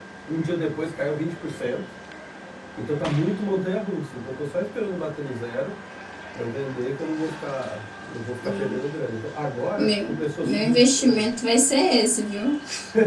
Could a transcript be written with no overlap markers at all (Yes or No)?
No